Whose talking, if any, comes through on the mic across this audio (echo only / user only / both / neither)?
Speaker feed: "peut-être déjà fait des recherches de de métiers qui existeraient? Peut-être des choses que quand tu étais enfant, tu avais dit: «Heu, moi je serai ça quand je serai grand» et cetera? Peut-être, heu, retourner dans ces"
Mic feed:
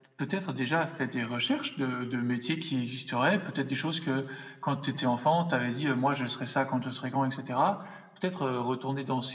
echo only